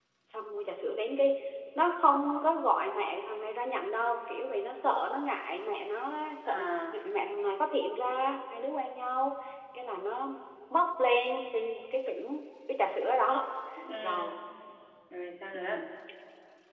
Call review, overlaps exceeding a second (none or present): none